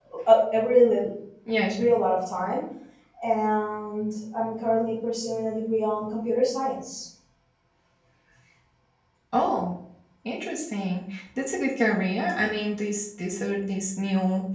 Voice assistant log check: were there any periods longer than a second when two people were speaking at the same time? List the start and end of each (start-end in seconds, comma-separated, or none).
none